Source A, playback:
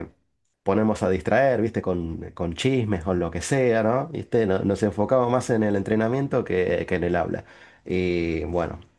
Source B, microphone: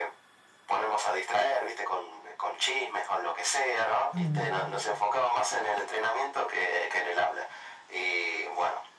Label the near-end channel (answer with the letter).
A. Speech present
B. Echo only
A